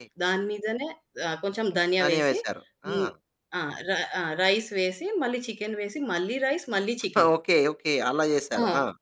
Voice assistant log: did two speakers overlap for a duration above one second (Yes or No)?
No